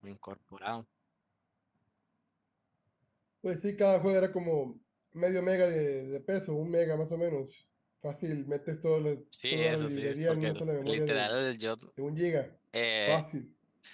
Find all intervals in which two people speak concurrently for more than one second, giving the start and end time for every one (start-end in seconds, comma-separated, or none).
9.5-11.3